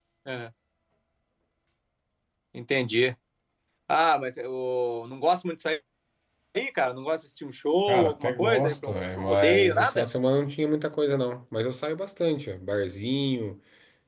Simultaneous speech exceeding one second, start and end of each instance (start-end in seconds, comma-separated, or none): 7.9-10.1